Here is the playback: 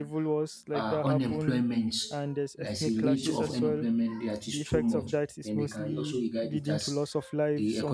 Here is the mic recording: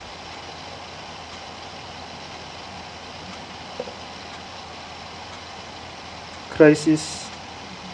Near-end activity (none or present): present